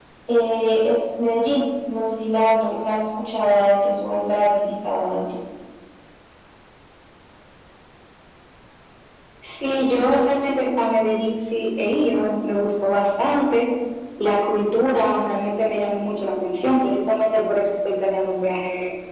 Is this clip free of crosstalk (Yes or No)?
Yes